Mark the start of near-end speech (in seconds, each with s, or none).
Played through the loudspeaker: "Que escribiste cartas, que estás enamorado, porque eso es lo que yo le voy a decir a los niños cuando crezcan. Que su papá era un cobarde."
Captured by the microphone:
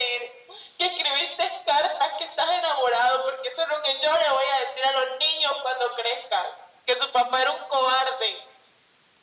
none